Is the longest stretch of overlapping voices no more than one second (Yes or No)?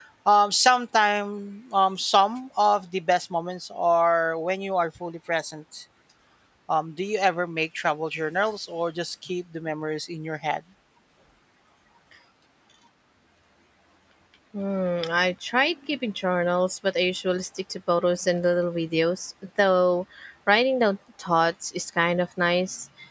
Yes